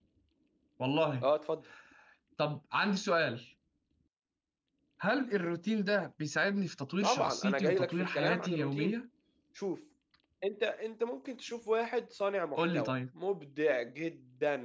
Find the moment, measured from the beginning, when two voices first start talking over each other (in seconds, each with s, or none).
7.0 s